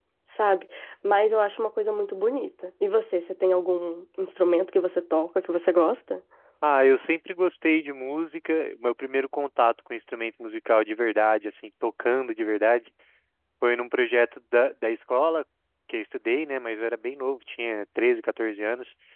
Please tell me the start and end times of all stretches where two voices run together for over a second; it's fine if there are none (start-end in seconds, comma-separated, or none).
none